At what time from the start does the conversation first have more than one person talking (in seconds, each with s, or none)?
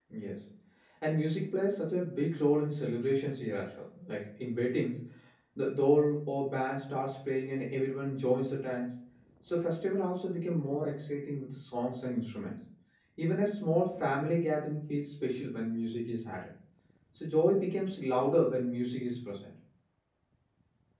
none